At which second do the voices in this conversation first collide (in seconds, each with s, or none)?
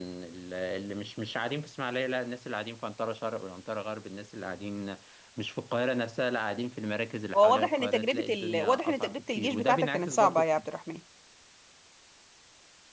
7.3 s